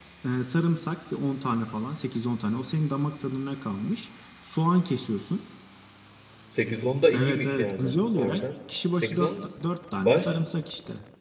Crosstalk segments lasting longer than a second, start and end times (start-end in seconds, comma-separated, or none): 7.1-8.4